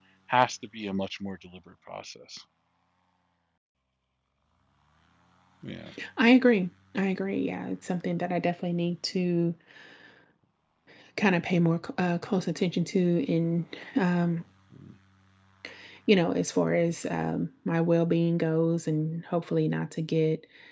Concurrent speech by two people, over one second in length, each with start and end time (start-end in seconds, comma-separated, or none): none